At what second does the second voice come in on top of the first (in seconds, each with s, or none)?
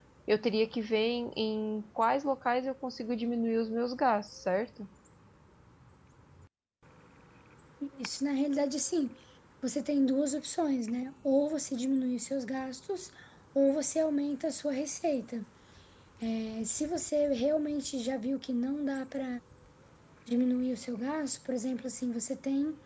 none